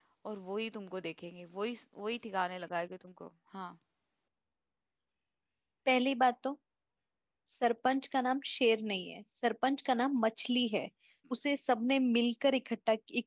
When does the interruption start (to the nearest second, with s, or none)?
none